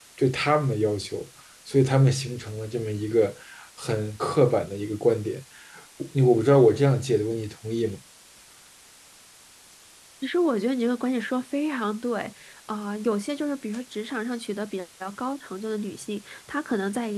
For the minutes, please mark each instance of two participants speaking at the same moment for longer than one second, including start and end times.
none

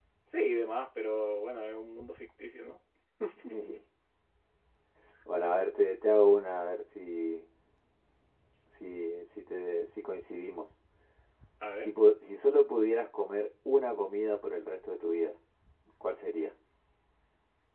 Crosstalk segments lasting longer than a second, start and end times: none

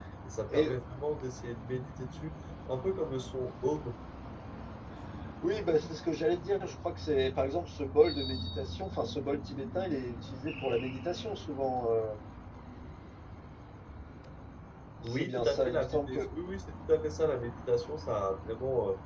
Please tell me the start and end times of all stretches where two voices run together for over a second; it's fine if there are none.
15.0-16.4

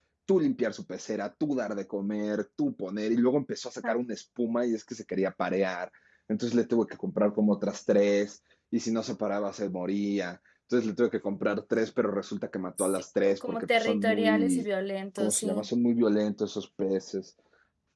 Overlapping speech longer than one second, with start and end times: 12.8-14.7

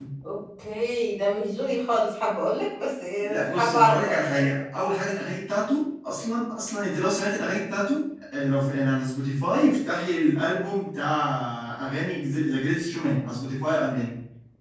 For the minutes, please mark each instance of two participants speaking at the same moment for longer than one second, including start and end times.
3.2-4.6

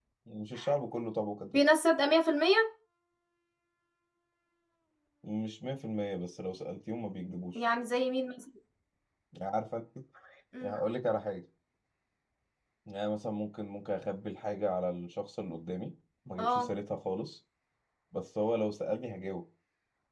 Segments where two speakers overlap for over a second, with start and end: none

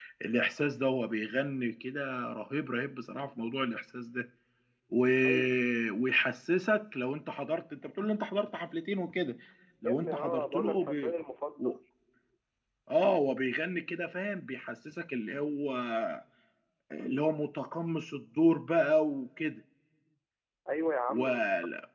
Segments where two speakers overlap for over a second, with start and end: 9.8-11.1

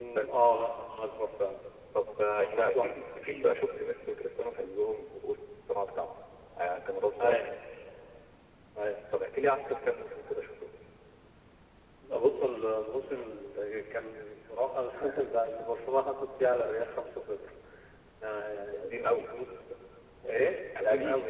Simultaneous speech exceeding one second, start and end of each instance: 2.3-3.5

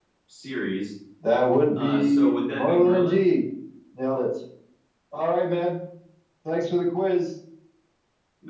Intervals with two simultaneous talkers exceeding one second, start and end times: 1.7-3.3

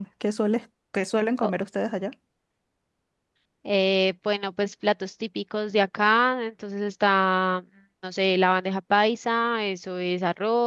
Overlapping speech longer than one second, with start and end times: none

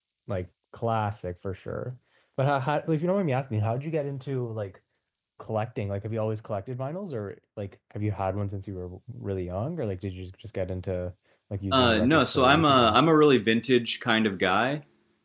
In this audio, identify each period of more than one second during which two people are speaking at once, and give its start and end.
11.7-13.0

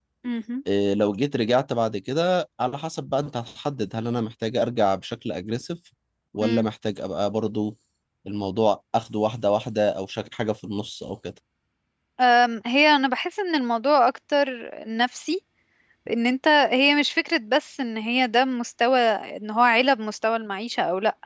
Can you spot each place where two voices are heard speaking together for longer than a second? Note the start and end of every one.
none

